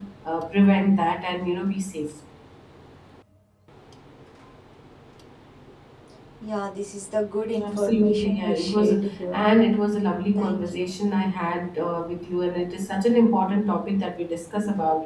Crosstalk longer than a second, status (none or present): present